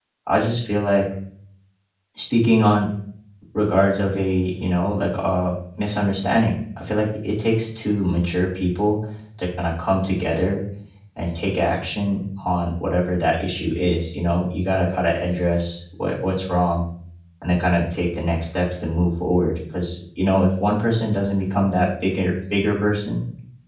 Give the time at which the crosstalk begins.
none

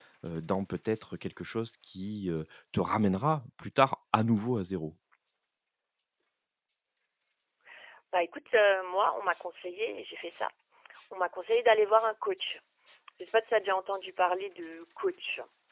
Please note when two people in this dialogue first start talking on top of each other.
none

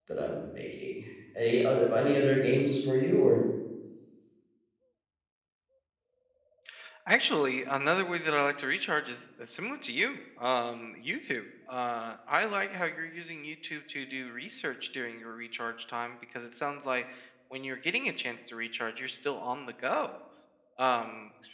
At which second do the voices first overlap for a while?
none

